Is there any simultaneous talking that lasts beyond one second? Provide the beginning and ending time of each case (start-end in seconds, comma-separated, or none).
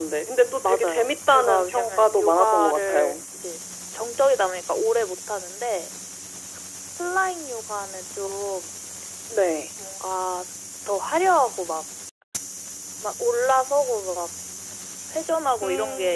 0.6-3.2